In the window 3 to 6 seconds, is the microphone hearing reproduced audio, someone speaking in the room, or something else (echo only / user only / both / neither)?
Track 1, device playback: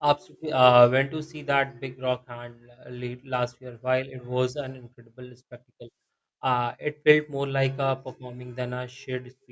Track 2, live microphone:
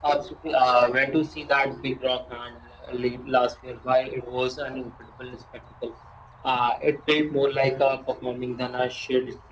echo only